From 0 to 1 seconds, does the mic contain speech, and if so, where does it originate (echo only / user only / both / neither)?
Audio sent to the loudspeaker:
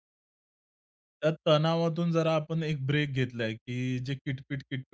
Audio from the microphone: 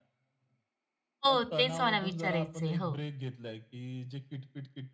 neither